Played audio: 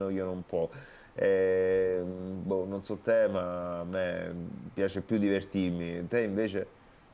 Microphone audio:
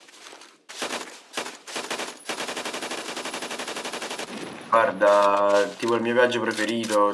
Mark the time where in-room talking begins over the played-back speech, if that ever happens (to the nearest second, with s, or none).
5 s